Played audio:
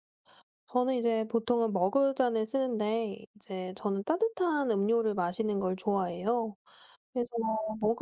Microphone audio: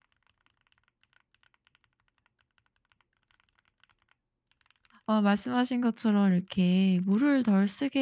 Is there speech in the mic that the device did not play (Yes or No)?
Yes